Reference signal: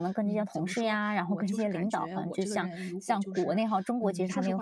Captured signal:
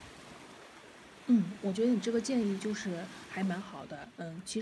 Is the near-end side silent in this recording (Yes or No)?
No